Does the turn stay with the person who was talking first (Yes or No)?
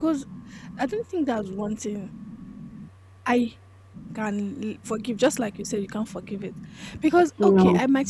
Yes